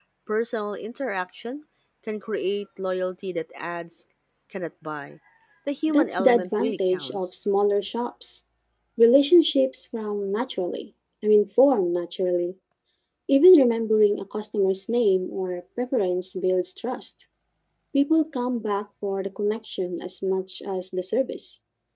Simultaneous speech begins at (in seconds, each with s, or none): 5.9 s